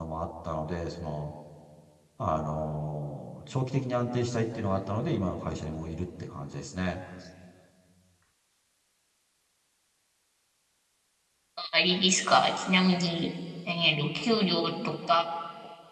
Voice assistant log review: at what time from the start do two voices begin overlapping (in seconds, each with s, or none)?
none